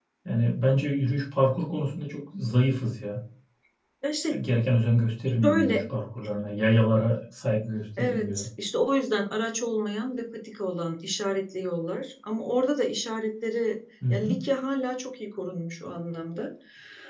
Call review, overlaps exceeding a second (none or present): none